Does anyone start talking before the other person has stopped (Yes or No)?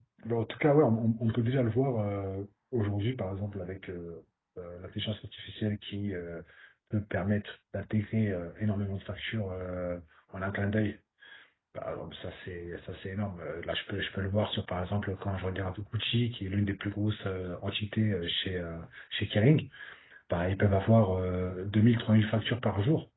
No